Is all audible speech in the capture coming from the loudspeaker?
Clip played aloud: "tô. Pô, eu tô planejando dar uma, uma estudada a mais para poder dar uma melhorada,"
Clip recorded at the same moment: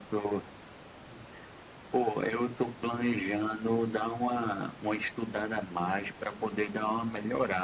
Yes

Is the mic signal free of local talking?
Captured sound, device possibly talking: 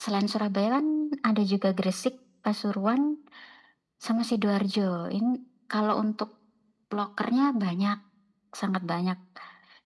Yes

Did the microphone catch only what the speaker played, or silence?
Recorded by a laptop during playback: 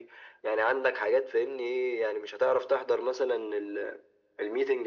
Yes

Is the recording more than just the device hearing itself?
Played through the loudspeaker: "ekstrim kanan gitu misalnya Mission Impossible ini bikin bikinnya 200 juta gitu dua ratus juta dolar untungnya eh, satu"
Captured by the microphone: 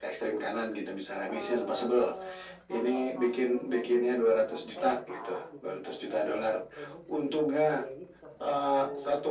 Yes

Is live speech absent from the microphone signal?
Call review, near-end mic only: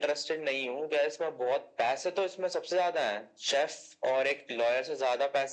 Yes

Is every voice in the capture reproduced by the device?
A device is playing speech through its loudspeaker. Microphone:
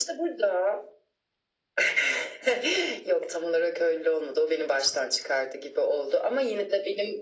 Yes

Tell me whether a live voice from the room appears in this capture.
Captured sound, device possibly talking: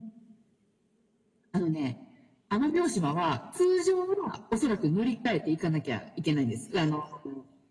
No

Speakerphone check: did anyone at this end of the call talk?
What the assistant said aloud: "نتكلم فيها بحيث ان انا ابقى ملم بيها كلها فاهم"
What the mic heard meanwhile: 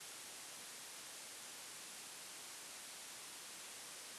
No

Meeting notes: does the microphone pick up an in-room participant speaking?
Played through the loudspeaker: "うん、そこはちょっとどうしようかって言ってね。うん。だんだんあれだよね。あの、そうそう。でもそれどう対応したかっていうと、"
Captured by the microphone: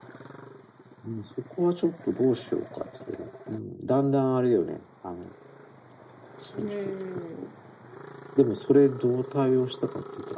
Yes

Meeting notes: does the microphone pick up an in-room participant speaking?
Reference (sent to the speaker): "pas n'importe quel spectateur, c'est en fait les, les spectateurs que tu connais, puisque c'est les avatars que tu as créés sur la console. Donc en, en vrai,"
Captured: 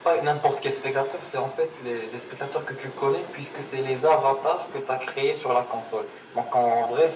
No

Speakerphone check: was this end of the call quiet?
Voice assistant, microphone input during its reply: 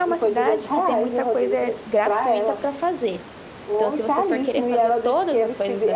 No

